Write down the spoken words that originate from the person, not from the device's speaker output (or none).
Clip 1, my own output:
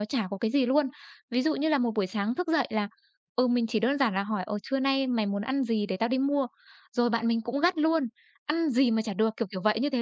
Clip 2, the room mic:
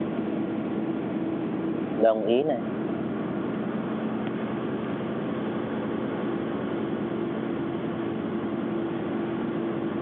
đồng ý này,